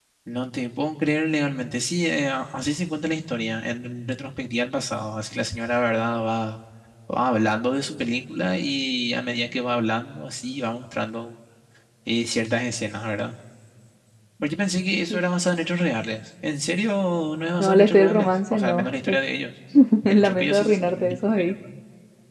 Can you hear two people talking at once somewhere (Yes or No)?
Yes